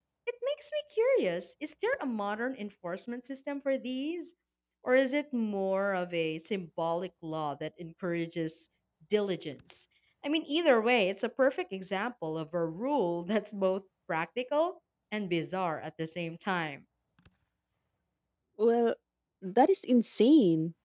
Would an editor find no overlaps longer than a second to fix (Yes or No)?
Yes